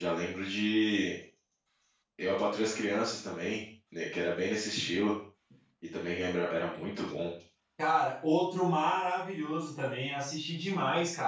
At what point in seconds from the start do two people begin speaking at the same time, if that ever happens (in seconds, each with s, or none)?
none